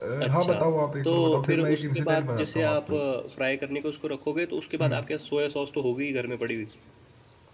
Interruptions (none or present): present